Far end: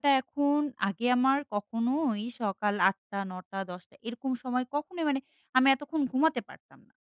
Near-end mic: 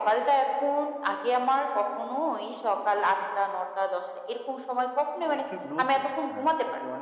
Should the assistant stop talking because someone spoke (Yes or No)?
Yes